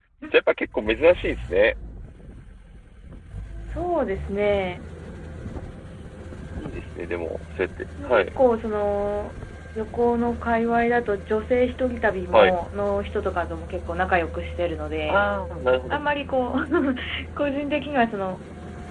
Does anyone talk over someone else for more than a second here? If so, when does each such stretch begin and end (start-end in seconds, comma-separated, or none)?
none